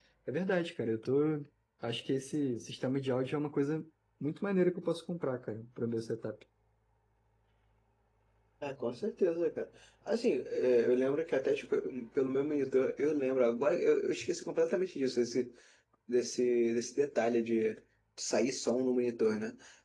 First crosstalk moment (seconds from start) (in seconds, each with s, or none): none